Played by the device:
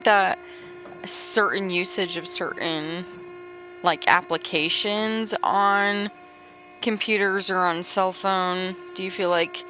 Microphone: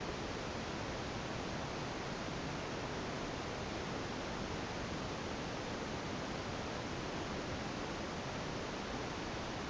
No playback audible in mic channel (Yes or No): Yes